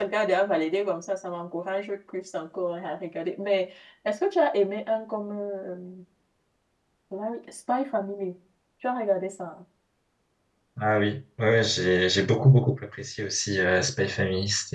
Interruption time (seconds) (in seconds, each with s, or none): none